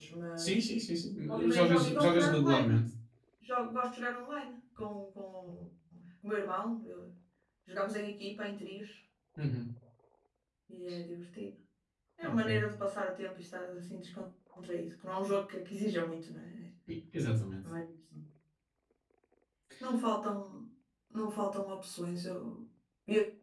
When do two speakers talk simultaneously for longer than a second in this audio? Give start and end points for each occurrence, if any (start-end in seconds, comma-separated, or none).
1.3-2.8